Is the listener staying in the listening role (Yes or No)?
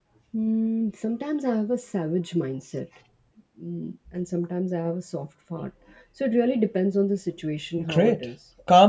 No